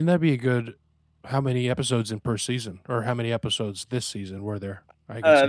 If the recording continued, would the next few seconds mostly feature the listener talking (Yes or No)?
Yes